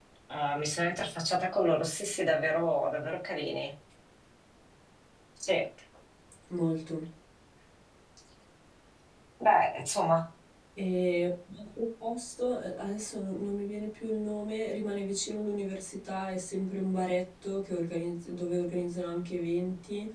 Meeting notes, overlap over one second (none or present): none